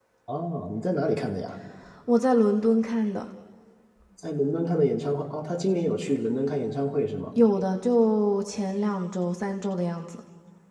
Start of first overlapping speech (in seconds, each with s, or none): none